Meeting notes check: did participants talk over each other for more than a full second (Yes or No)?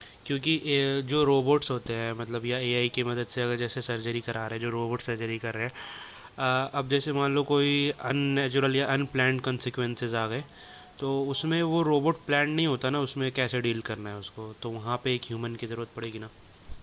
No